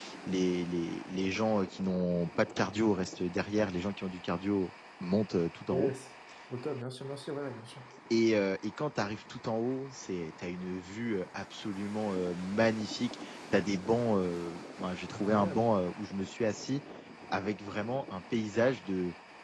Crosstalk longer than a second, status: none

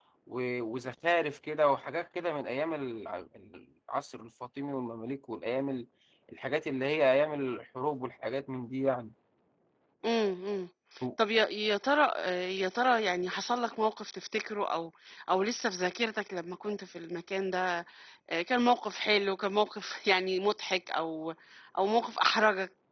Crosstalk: none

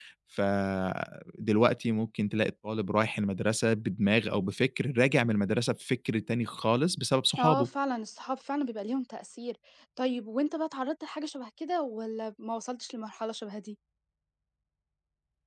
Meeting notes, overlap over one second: none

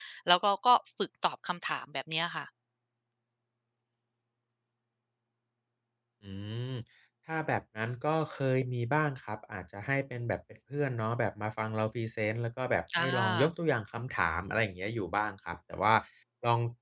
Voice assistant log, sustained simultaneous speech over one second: none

